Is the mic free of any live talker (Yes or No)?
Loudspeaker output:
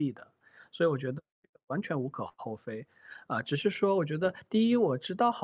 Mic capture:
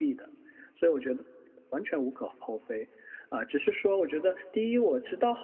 Yes